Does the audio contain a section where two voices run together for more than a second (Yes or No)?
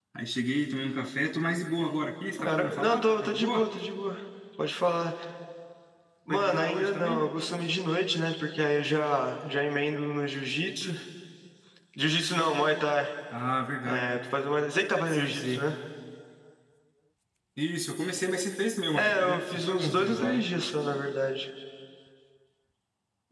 Yes